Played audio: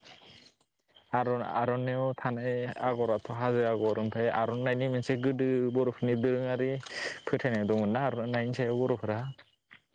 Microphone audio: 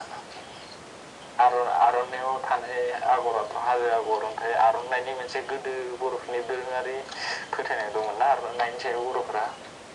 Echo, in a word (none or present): present